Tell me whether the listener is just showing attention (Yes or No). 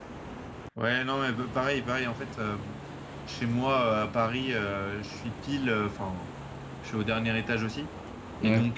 Yes